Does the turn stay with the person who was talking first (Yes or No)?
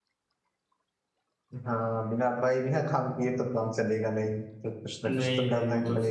No